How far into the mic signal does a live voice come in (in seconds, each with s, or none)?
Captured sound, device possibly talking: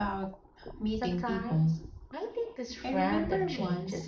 0.9 s